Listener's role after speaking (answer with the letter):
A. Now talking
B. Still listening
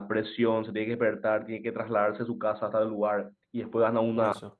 B